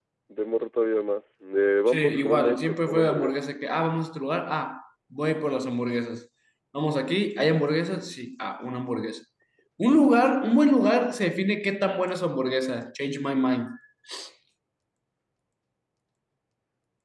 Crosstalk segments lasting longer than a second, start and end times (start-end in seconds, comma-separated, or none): 1.9-3.3